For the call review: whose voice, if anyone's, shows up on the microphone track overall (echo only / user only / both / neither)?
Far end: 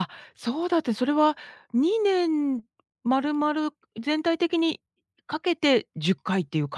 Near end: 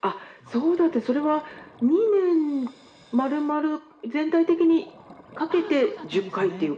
both